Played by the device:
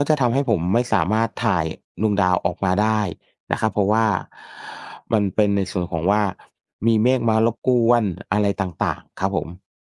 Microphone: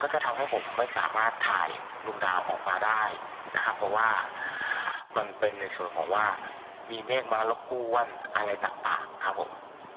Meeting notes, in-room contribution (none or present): none